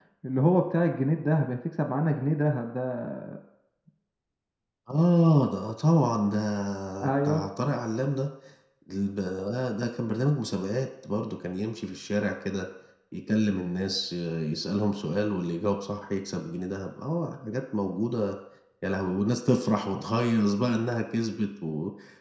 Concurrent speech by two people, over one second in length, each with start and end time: none

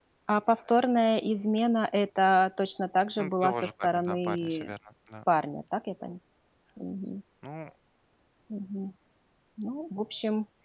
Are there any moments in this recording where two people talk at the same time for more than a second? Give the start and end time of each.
3.2-4.7

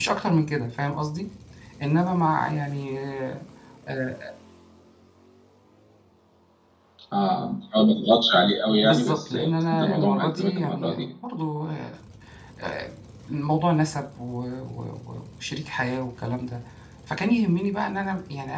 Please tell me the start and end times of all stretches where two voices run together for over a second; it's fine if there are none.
8.8-11.1

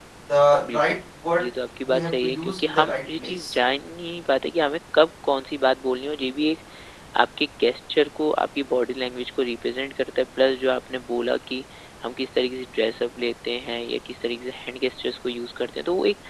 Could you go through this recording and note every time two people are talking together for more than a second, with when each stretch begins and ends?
1.9-3.5

